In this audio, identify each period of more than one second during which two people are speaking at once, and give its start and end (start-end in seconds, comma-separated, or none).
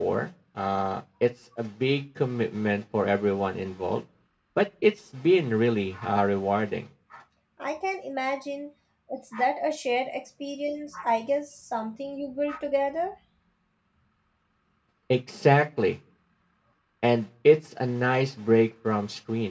none